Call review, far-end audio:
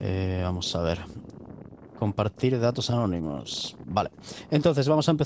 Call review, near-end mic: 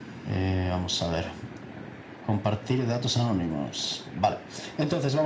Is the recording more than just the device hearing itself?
No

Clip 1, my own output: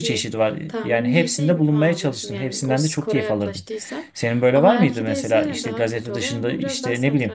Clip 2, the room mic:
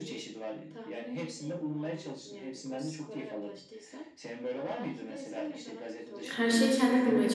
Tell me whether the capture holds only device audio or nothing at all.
No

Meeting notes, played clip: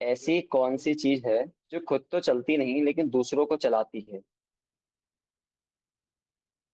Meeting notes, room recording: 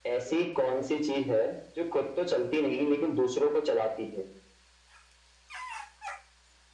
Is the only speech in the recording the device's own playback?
Yes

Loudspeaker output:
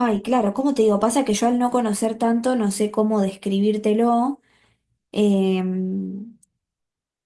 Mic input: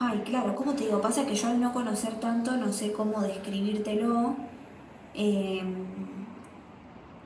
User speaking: No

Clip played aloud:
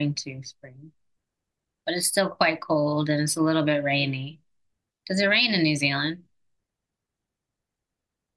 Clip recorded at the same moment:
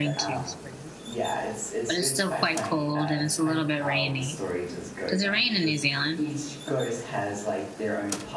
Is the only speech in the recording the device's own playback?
No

